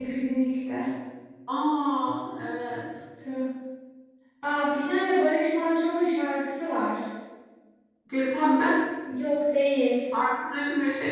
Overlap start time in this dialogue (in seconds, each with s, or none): none